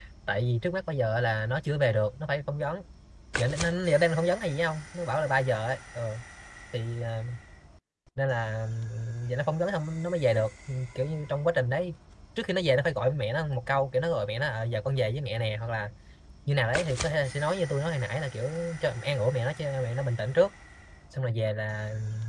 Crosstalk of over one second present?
No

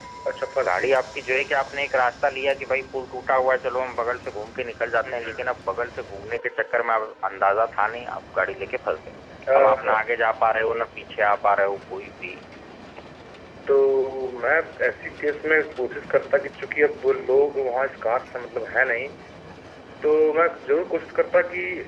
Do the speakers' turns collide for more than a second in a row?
No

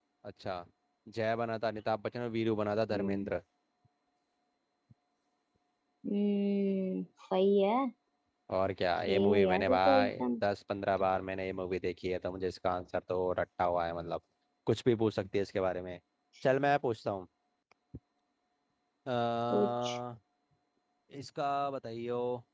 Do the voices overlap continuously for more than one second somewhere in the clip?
Yes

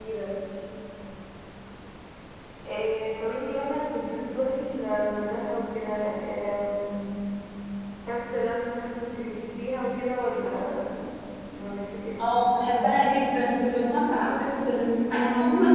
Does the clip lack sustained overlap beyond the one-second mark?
Yes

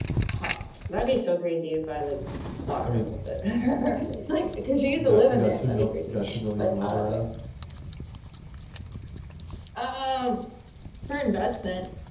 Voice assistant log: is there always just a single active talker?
No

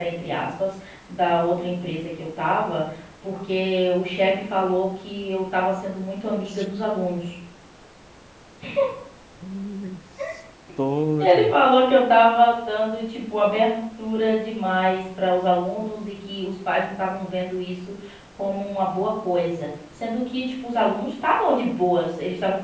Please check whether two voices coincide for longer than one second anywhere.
No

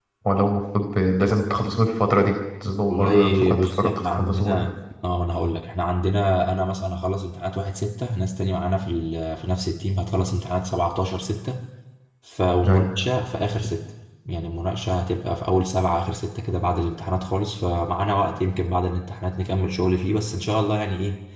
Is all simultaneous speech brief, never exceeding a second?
No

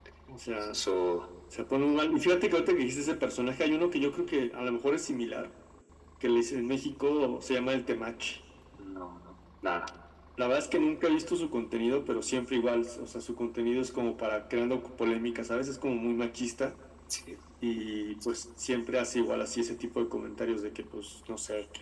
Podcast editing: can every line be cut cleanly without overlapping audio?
Yes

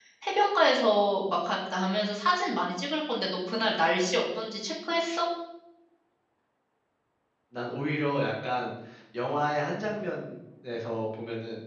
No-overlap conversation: Yes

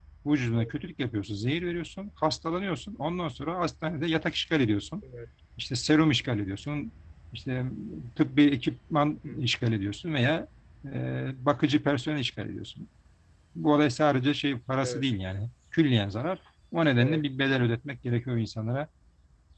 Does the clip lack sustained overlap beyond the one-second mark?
Yes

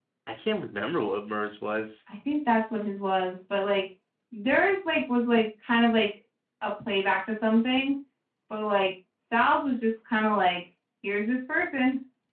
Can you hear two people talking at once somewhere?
No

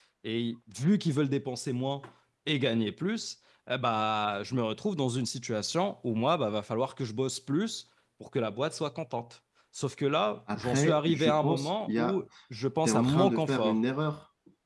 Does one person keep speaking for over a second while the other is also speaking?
Yes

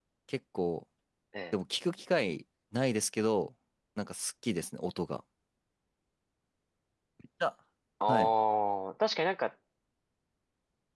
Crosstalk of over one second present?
No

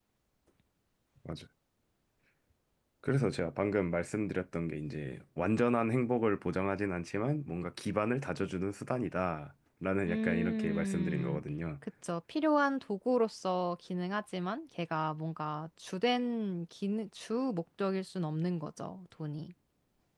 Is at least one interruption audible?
Yes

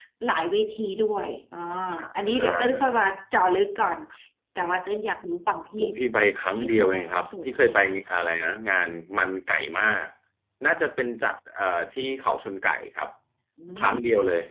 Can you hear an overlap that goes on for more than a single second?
Yes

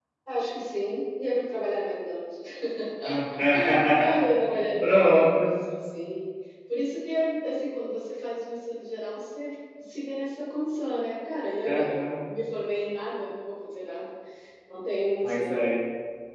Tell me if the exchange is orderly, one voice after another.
No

